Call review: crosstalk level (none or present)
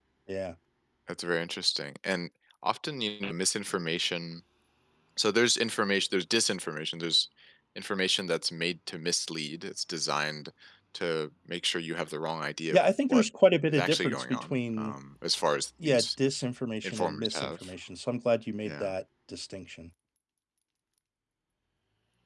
present